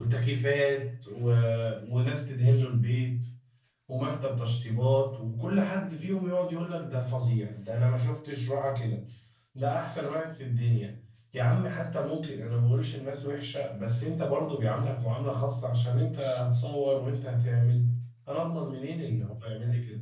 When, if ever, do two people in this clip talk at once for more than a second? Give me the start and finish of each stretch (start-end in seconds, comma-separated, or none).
none